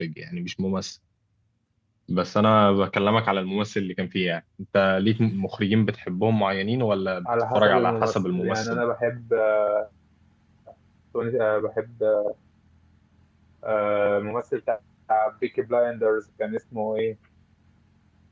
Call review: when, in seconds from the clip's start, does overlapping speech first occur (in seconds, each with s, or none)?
7.5 s